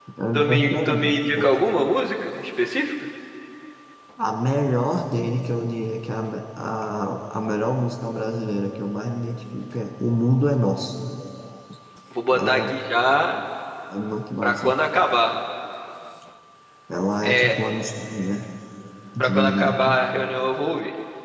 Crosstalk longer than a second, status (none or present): present